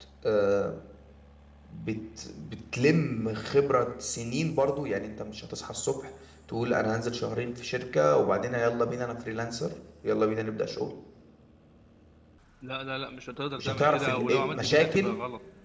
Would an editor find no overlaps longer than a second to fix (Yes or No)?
No